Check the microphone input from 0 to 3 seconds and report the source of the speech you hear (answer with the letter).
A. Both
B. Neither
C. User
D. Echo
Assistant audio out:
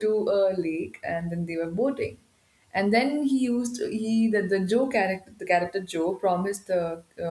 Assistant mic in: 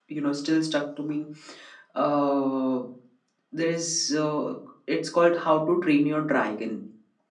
C